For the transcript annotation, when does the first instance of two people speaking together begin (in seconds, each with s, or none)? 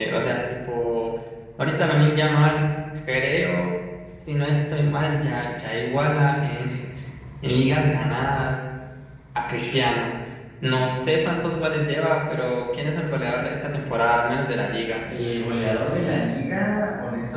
none